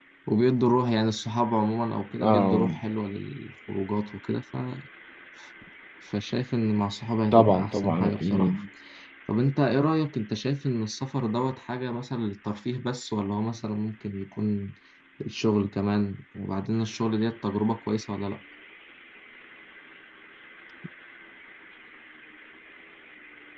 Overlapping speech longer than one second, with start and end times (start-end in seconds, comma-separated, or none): 7.3-8.5